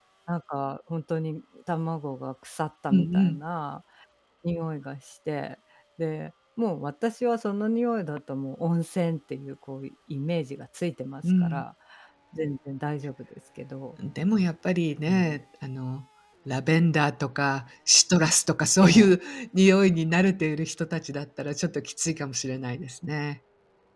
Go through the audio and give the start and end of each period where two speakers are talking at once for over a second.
none

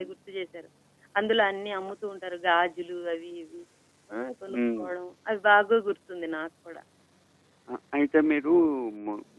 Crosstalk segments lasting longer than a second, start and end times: none

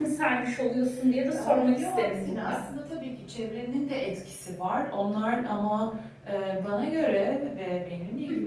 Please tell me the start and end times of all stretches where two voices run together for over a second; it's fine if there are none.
1.4-2.6

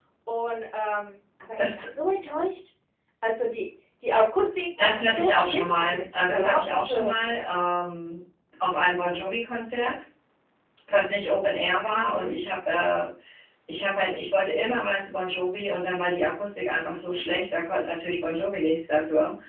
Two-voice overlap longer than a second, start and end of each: 4.8-7.1

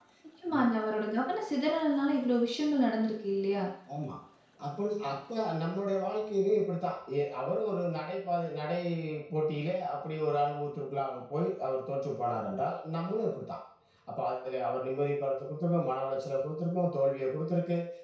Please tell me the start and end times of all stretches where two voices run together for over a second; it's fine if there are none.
none

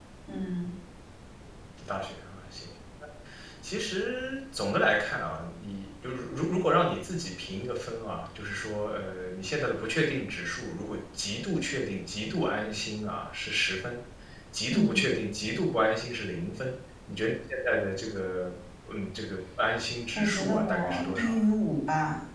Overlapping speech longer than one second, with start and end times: 20.2-21.4

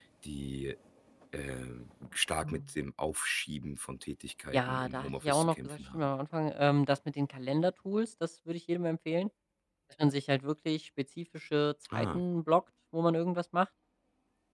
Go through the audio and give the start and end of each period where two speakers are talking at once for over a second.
4.5-6.1

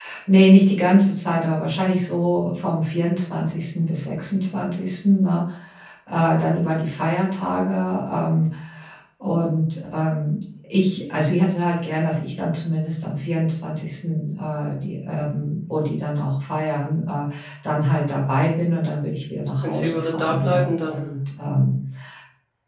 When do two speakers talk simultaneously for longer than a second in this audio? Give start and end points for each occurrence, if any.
19.6-21.0

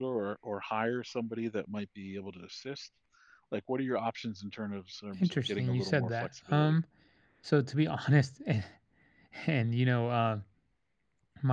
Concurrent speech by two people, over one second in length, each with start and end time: 5.2-6.8

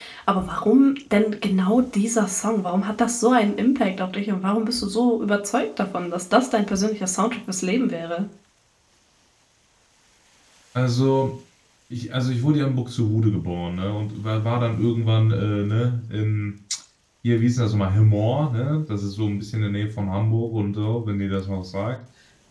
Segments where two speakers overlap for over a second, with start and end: none

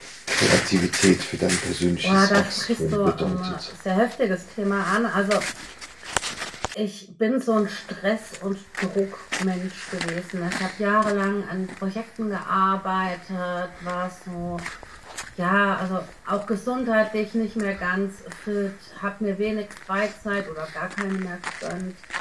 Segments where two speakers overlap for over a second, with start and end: 2.0-3.7

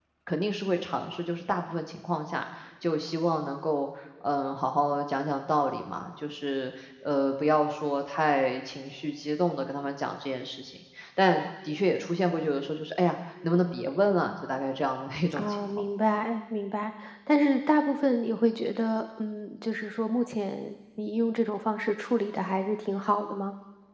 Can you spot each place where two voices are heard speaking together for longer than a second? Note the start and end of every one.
none

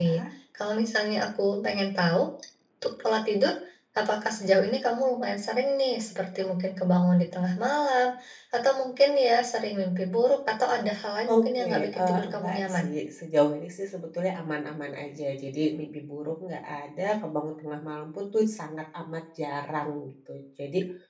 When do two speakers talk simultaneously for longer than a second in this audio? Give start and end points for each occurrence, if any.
11.3-12.8

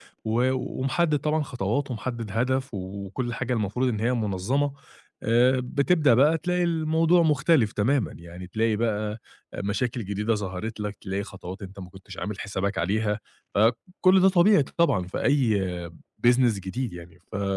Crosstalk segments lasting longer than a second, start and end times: none

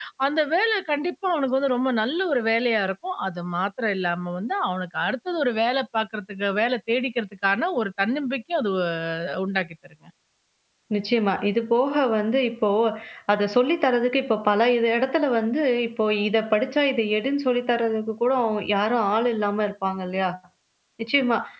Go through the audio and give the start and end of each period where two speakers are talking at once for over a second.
none

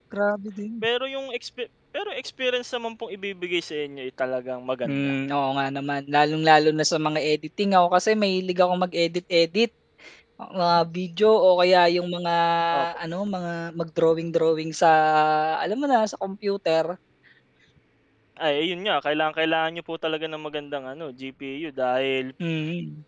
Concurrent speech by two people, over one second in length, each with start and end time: none

